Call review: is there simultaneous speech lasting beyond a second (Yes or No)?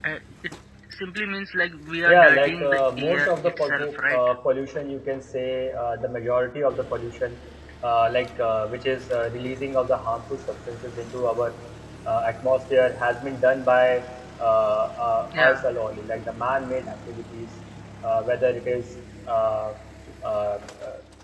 Yes